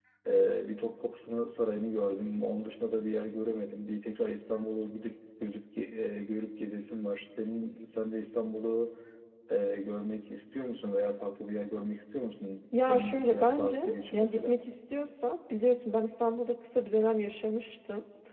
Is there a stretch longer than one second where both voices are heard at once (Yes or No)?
Yes